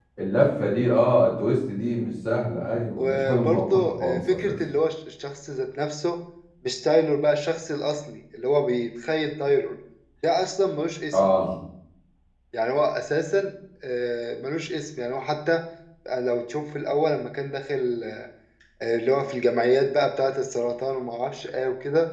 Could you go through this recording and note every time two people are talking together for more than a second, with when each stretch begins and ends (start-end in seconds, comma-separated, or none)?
3.0-4.6